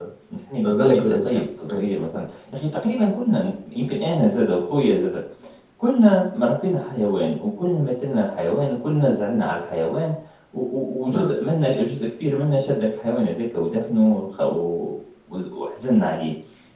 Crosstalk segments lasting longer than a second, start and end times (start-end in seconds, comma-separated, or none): 0.6-1.9